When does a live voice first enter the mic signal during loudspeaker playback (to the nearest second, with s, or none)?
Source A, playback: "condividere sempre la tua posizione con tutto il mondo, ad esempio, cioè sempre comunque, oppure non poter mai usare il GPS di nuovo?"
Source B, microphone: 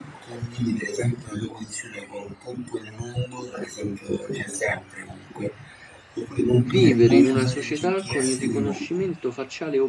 7 s